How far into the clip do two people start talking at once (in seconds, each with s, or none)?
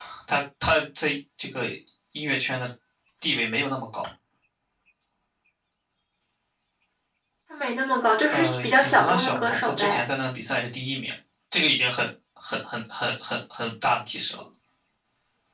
8.3 s